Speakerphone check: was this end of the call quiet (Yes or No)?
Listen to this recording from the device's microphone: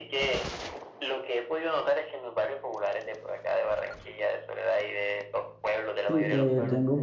No